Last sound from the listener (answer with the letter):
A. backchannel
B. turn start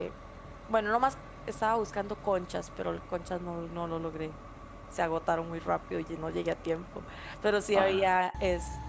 A